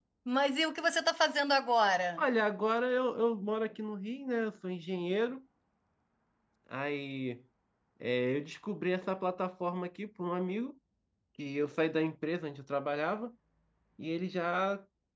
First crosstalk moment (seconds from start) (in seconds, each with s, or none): none